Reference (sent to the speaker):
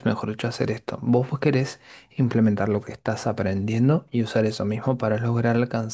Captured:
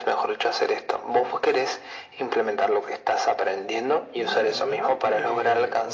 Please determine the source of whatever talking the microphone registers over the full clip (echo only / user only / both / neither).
both